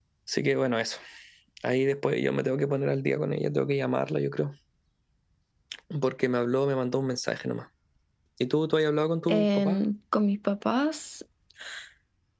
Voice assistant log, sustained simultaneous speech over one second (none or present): none